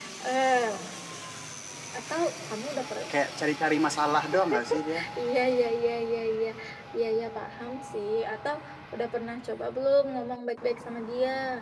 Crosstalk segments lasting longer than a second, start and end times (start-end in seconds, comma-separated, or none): none